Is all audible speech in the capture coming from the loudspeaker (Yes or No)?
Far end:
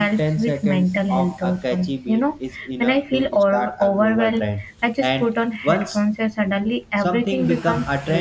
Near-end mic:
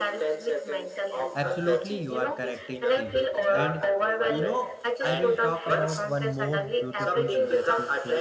No